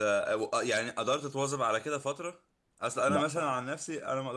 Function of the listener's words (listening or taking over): listening